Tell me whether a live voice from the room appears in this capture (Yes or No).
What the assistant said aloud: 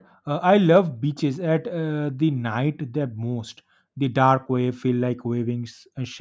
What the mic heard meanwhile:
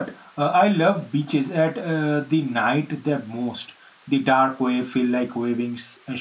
No